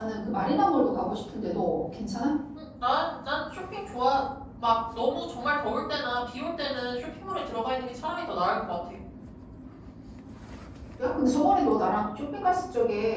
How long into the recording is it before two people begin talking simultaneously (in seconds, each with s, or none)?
none